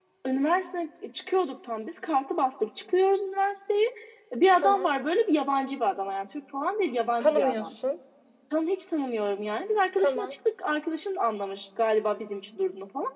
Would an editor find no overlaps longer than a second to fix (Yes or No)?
Yes